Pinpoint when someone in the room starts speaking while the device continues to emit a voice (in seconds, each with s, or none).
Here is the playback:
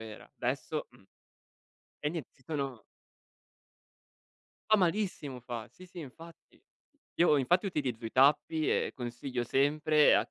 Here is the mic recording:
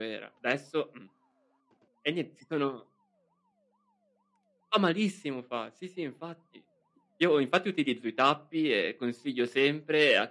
none